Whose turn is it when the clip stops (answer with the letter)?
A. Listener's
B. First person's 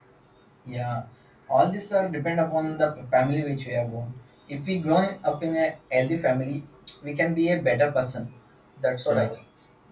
B